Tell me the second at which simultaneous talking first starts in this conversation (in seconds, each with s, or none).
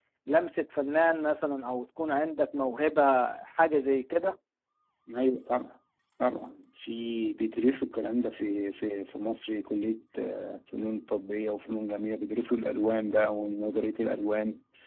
none